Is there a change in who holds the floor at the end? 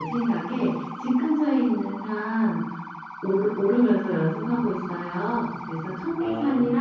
No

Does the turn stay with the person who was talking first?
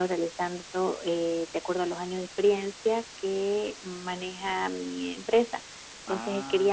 Yes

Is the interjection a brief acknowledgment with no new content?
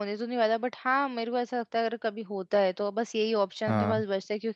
Yes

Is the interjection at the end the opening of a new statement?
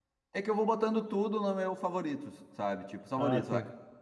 No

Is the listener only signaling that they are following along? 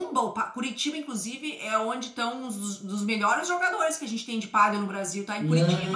No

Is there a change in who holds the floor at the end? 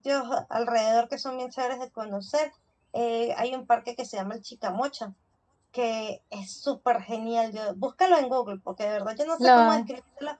No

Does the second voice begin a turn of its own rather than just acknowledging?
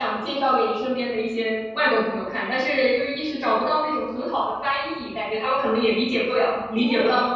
Yes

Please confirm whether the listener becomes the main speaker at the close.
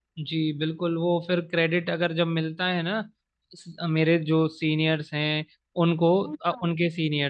No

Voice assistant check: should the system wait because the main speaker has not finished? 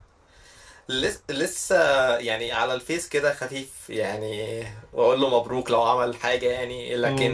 Yes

